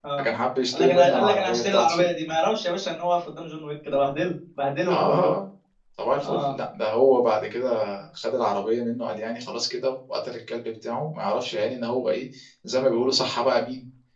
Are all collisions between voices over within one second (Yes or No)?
No